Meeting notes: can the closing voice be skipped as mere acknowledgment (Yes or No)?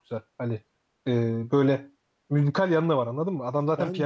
No